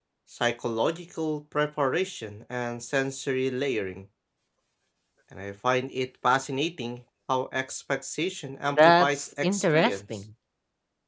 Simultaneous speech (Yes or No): Yes